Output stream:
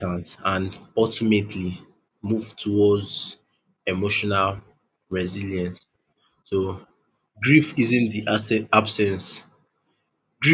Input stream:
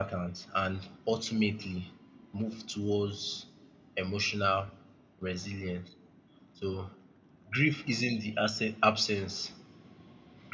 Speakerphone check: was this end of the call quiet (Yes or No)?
Yes